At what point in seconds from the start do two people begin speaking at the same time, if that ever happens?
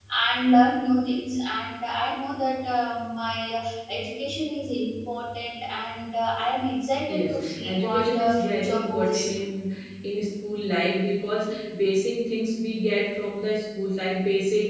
7.1 s

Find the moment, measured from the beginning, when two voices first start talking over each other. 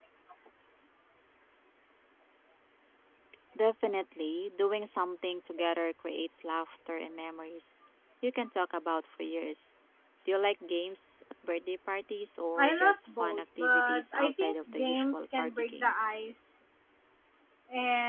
12.6 s

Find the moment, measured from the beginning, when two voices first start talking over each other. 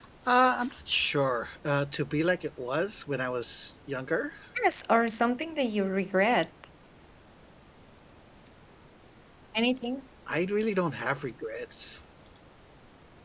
none

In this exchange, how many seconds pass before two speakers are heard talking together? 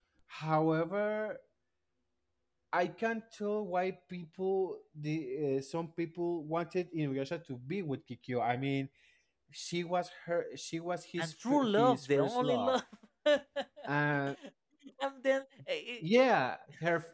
11.2 s

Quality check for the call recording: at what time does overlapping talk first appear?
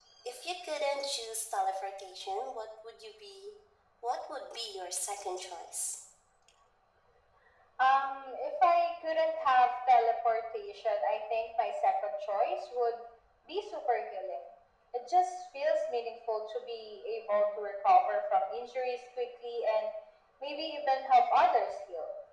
none

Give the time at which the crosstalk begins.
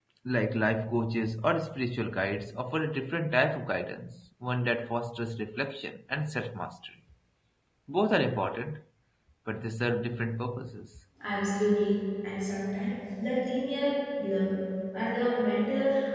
none

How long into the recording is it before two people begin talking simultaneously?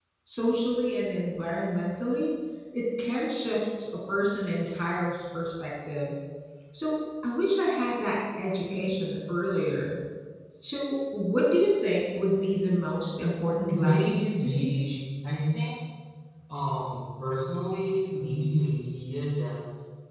13.7 s

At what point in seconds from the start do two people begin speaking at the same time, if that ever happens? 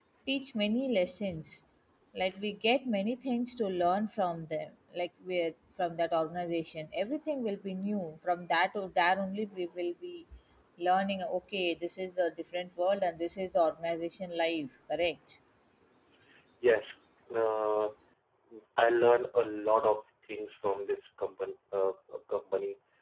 none

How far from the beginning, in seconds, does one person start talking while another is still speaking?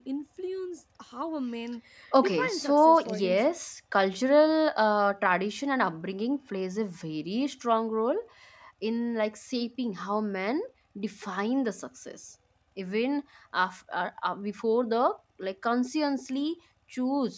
2.2 s

